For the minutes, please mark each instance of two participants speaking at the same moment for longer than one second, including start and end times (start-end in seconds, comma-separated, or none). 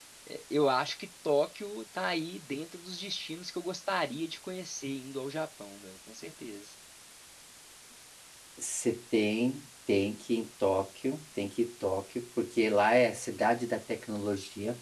none